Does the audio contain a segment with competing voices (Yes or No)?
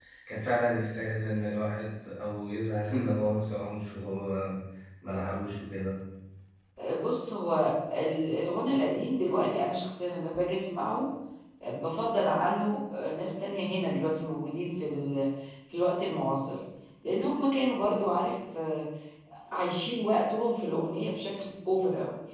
No